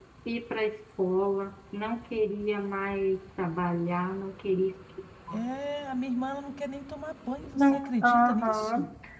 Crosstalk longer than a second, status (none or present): present